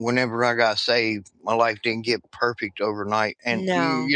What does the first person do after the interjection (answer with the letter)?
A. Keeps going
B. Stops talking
A